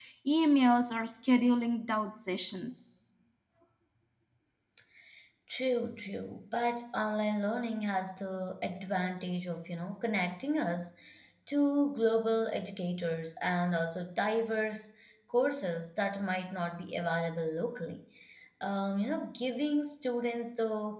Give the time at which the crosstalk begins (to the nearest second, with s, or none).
none